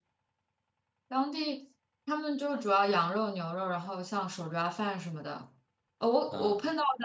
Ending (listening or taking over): listening